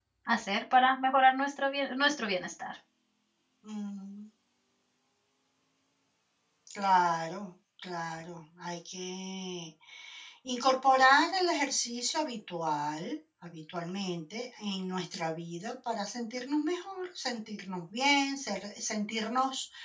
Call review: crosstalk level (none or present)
none